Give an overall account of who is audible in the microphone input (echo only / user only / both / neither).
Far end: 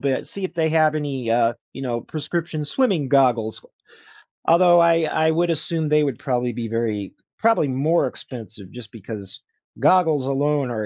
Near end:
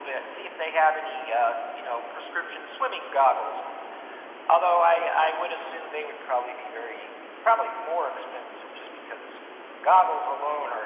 echo only